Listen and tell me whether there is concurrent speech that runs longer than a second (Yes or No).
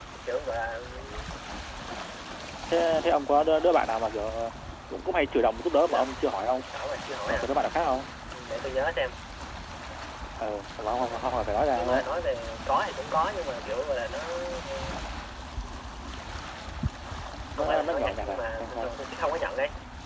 Yes